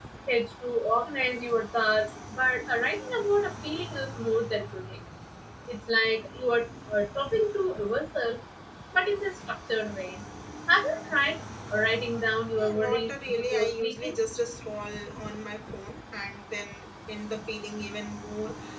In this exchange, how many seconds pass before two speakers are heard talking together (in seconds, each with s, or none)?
12.5 s